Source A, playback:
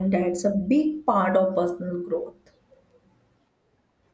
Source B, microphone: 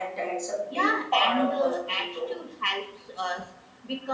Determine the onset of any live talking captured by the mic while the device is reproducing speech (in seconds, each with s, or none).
0.7 s